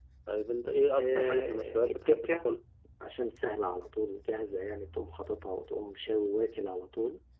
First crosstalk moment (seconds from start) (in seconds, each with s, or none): 1.0 s